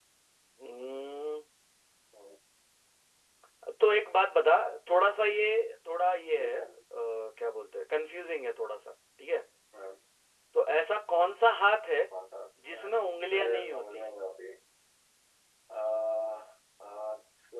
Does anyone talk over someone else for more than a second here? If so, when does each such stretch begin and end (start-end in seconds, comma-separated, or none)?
12.7-14.0